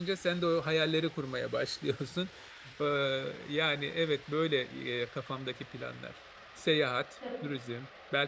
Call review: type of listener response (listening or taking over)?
listening